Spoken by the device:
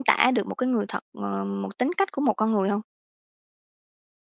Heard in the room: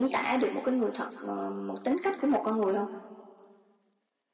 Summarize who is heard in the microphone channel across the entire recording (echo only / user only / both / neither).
echo only